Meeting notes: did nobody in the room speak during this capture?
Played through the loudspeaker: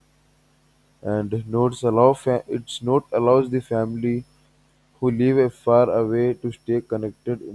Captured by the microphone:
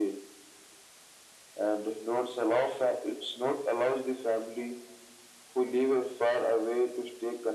Yes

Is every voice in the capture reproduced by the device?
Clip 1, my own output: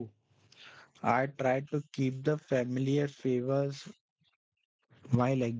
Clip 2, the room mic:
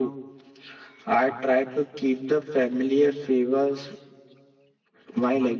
Yes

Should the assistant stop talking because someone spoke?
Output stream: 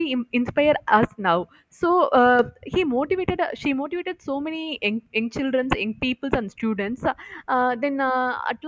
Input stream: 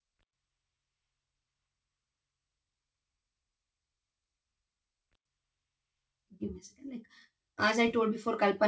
Yes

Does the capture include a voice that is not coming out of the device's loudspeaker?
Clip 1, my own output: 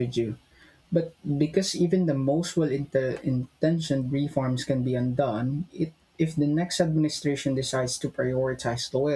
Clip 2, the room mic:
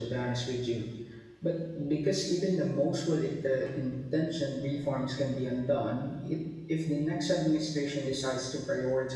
No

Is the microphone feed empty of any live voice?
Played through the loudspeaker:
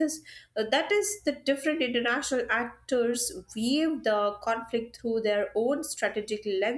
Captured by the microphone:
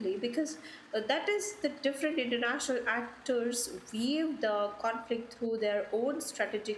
Yes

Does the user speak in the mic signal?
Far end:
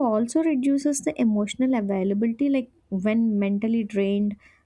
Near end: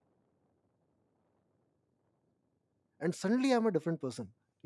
Yes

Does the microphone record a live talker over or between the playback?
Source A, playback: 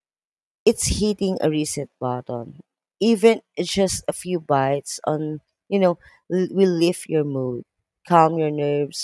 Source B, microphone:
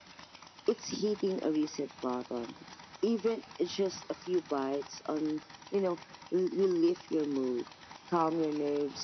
No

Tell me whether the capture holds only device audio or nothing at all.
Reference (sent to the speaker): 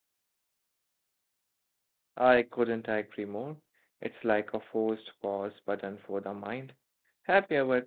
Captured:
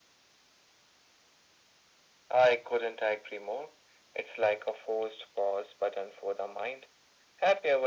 Yes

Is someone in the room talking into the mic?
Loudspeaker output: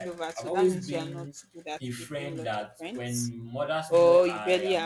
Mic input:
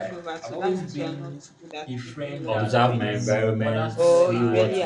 Yes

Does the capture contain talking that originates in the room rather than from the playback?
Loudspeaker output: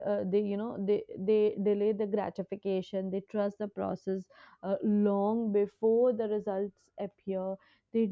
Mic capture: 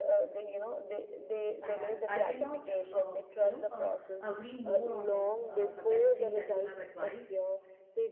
Yes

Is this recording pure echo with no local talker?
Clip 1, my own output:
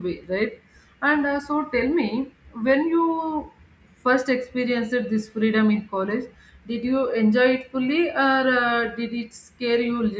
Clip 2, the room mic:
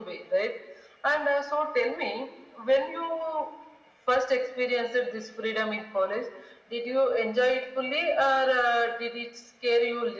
Yes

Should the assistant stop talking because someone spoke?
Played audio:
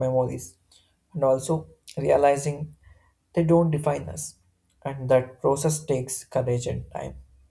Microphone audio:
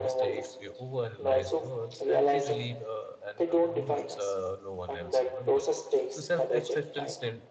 Yes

